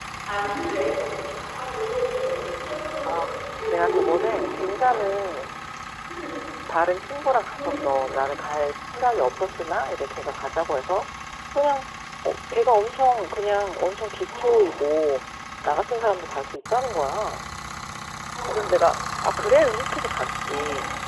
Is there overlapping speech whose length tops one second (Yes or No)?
Yes